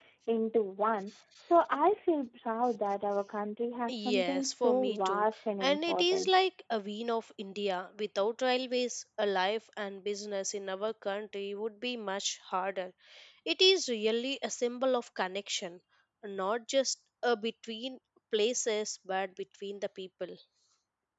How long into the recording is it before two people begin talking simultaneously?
4 s

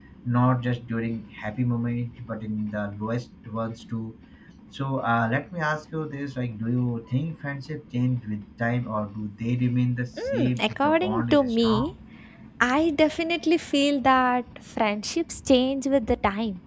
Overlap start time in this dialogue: 10 s

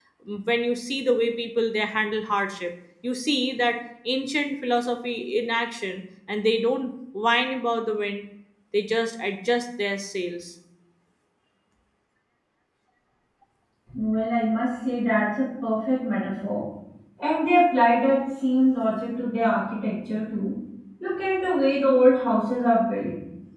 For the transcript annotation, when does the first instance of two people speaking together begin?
none

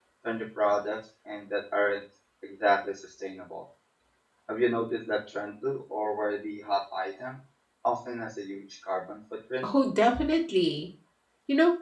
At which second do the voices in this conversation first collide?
none

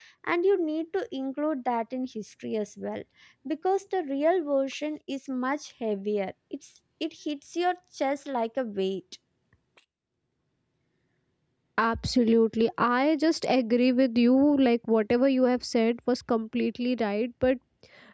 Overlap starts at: none

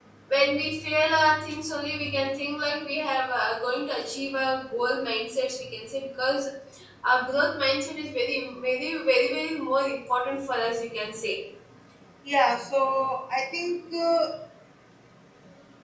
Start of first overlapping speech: none

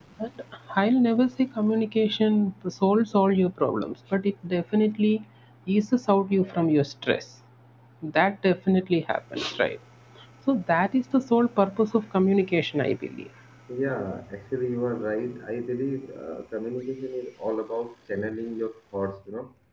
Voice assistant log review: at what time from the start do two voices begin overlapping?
none

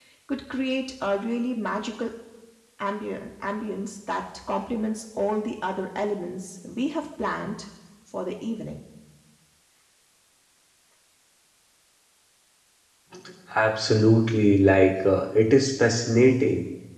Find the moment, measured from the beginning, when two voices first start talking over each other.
none

